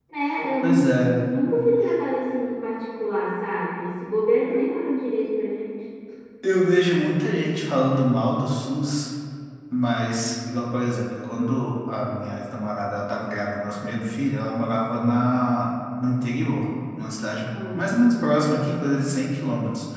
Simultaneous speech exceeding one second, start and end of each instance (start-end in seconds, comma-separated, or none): none